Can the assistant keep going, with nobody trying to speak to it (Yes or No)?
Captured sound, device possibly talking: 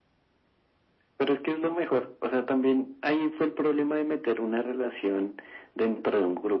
Yes